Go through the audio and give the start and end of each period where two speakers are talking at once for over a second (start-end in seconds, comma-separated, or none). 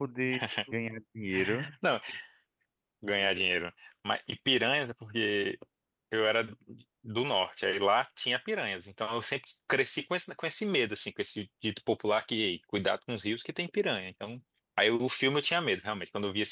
none